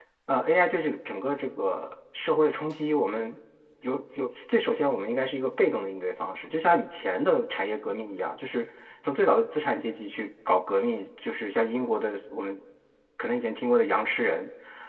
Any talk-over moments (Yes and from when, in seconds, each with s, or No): No